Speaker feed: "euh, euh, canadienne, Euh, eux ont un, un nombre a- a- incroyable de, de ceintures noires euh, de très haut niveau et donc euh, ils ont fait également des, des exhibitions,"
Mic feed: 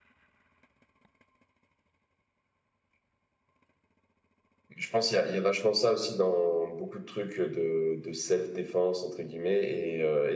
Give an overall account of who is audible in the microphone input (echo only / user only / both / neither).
user only